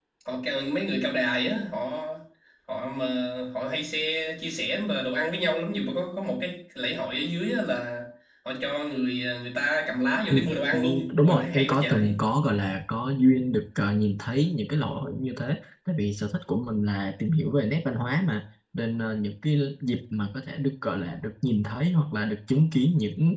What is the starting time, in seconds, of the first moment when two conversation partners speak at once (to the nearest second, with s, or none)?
10 s